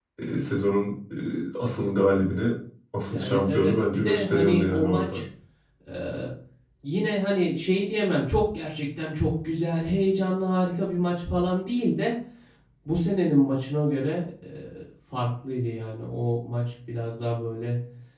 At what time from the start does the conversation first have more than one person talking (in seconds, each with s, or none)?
3.1 s